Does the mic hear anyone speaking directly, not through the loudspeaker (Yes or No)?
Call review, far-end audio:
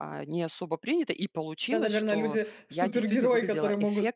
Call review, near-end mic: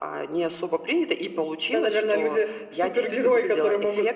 No